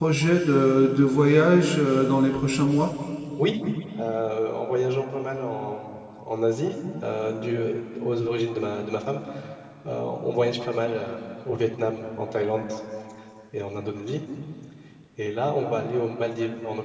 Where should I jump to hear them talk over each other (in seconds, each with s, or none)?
none